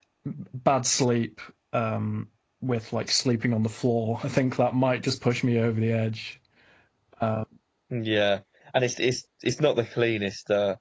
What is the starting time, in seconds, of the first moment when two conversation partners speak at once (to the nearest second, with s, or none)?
none